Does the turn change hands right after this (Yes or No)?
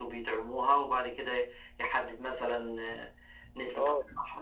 Yes